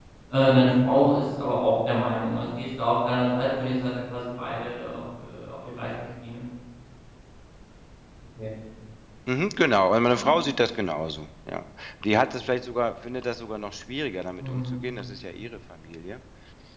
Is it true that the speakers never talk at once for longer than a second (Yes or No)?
Yes